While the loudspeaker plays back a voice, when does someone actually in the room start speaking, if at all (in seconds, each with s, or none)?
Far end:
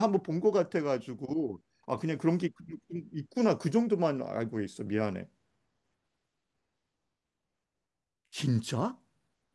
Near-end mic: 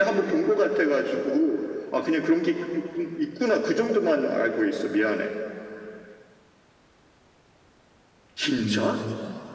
8.6 s